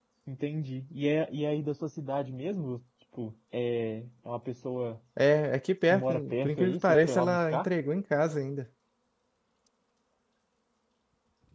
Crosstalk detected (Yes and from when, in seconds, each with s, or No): Yes, from 5.9 s